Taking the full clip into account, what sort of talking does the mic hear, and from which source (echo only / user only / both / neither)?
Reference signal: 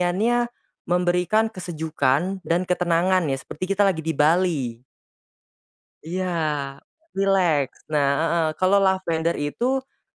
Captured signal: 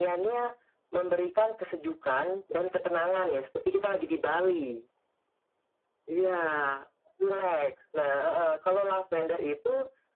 echo only